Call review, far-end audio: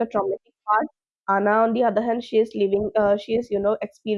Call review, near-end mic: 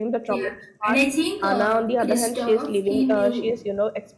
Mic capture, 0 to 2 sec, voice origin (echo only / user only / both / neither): both